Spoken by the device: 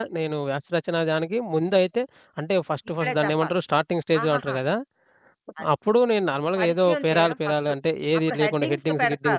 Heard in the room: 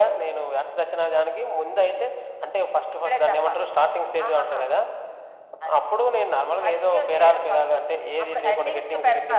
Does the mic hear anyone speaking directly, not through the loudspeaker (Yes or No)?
No